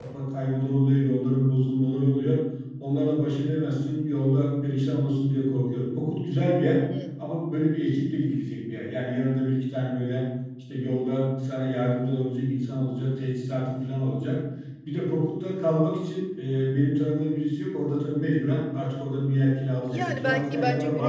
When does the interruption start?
19.9 s

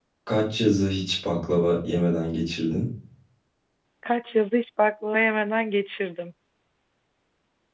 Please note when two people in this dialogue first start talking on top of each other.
none

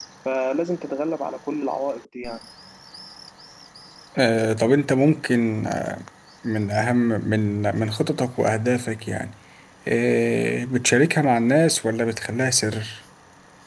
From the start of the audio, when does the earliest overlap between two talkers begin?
none

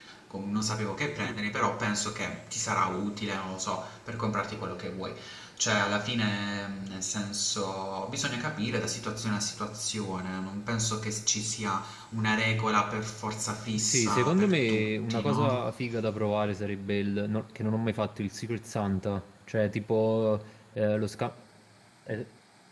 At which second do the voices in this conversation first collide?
13.8 s

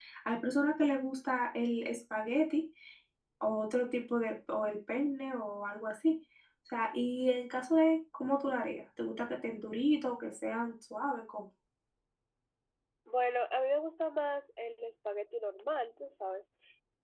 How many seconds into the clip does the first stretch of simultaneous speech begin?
none

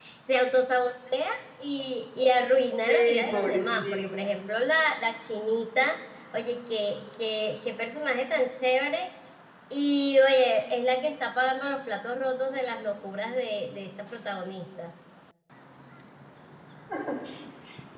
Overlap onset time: 2.9 s

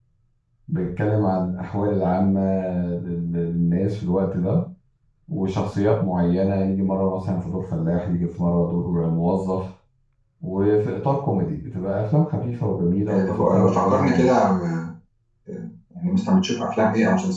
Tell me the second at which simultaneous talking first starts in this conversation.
13.1 s

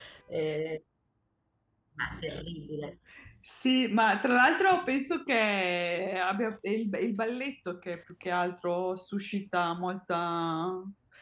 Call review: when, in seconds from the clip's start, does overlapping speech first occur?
none

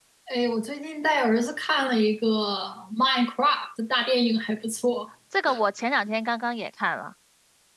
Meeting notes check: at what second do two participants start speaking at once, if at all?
none

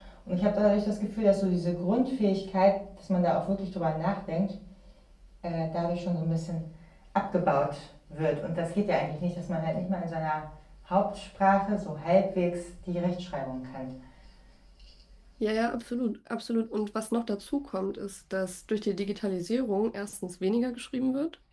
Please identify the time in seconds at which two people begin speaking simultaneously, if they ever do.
none

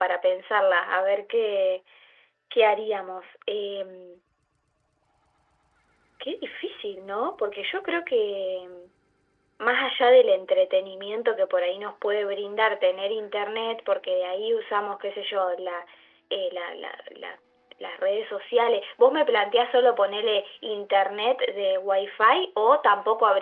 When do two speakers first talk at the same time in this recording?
none

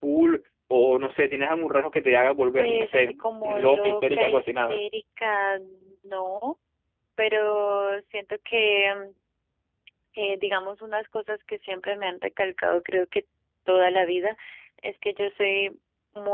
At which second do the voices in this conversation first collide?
2.6 s

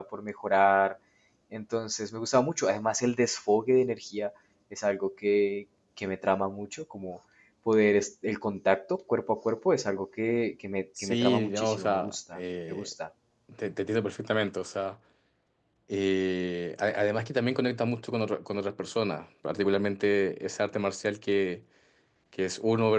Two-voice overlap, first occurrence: 11.0 s

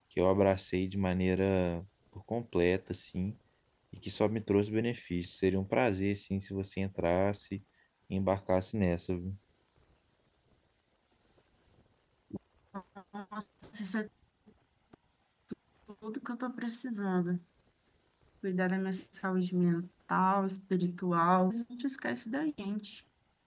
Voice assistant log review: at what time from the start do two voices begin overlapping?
none

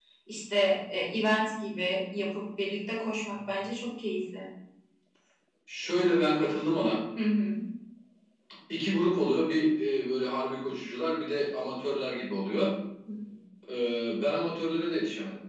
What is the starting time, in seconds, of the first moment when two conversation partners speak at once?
none

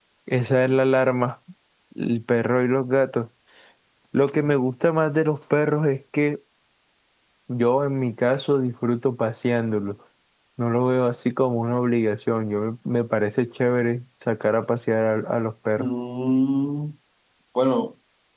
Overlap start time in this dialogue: none

